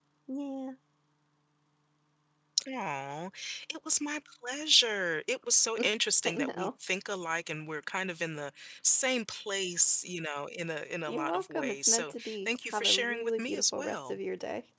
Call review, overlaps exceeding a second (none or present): present